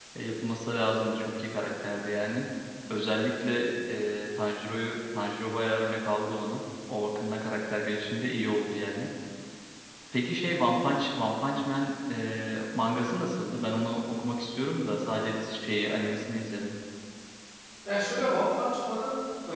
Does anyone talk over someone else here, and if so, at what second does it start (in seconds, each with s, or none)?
none